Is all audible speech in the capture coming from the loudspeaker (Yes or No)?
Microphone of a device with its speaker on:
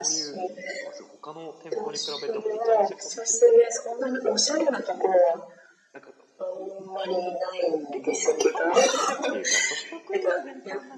No